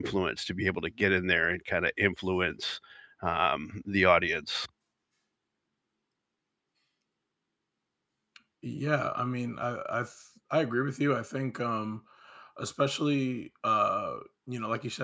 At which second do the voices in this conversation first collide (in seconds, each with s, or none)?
none